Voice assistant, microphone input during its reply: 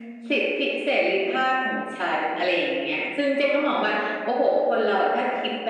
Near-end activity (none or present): present